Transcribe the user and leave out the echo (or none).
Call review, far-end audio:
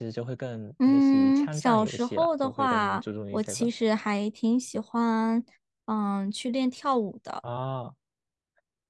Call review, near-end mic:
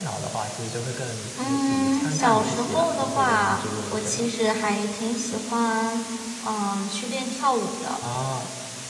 none